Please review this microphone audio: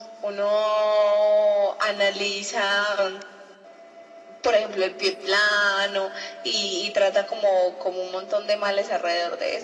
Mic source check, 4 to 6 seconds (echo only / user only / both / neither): echo only